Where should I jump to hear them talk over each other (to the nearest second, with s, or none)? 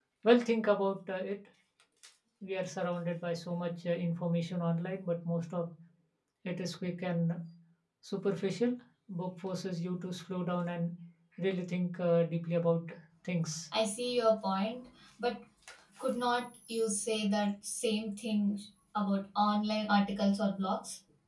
none